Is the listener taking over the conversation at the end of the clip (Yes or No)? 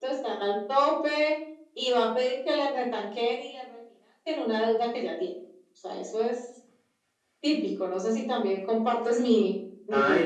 Yes